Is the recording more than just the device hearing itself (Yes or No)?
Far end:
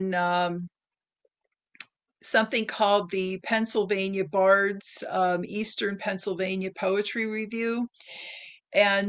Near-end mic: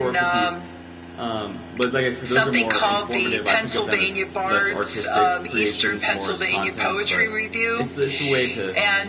Yes